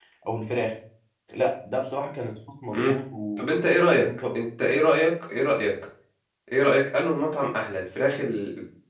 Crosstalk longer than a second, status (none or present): none